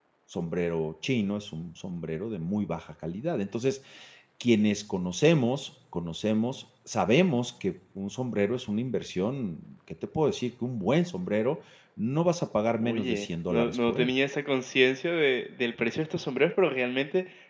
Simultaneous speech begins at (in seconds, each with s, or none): 12.8 s